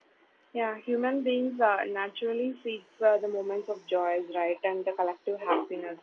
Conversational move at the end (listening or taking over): listening